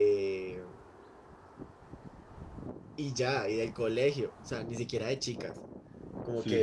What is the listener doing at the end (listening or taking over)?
listening